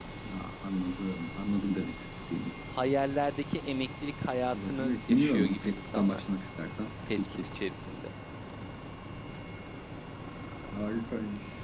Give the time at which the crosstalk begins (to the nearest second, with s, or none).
5 s